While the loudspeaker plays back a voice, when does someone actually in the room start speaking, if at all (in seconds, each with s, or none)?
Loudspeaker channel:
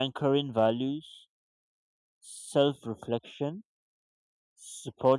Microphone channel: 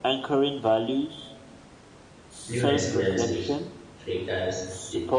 2.5 s